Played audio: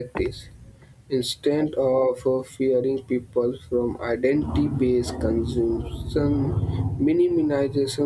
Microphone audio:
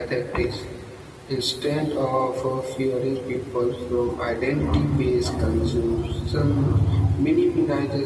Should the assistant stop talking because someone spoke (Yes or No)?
No